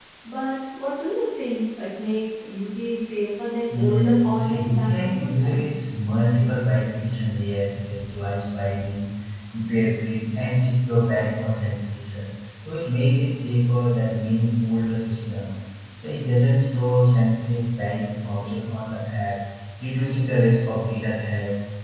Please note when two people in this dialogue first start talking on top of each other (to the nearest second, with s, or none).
4 s